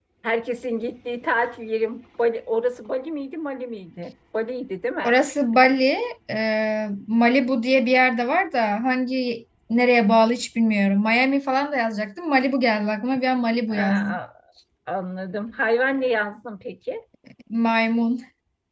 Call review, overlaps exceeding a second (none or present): none